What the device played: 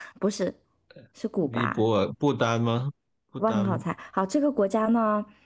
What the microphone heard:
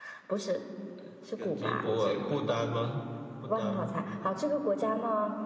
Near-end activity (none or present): present